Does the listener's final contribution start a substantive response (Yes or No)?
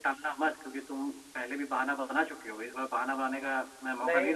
Yes